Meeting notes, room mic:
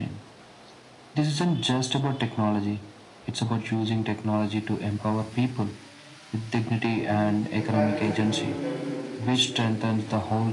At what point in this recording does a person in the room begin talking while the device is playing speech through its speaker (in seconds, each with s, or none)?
7.0 s